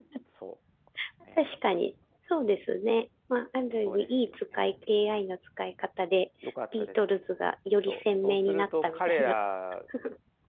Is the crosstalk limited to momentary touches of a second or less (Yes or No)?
No